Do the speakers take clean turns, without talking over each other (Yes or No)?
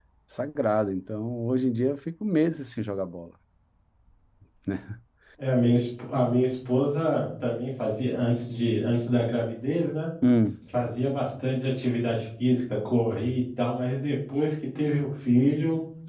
Yes